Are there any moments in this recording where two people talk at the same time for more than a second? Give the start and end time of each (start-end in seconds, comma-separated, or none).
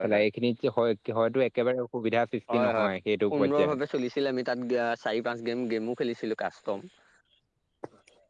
none